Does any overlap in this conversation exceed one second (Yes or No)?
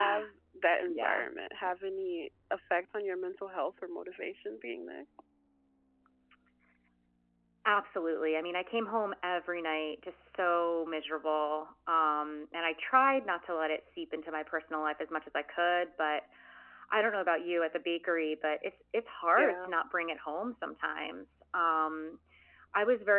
No